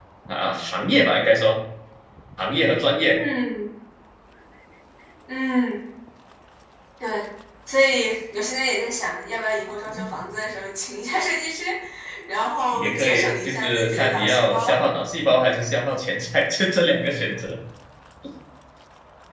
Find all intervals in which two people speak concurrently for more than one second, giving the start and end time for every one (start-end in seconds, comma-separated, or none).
12.7-14.8